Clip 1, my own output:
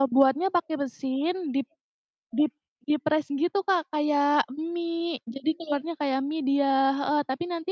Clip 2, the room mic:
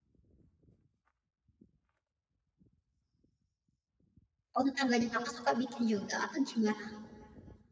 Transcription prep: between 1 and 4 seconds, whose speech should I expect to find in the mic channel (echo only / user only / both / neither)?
neither